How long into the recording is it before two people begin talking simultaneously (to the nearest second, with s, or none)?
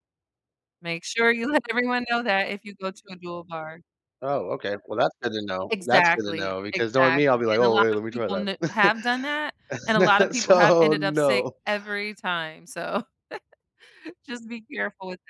6 s